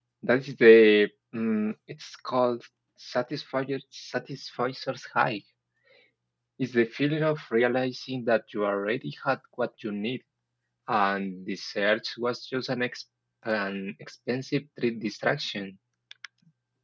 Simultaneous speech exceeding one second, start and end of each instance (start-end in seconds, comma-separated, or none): none